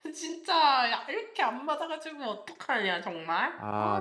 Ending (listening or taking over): taking over